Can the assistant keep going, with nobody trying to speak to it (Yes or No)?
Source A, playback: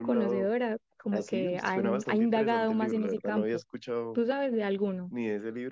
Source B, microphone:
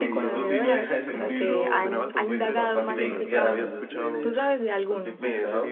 No